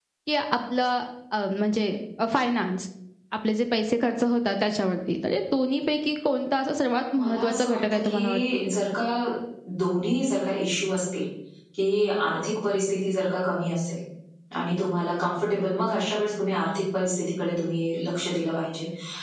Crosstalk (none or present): present